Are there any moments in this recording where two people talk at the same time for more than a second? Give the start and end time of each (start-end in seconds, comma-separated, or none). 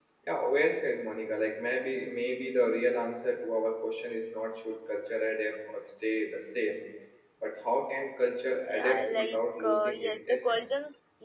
8.8-10.6